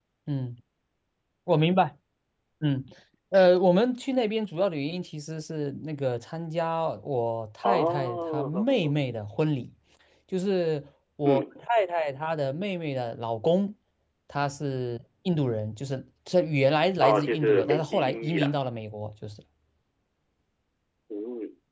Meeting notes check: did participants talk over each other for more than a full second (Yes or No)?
Yes